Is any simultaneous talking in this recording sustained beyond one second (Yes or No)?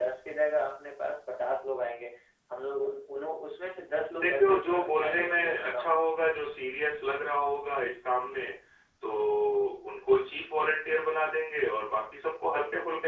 Yes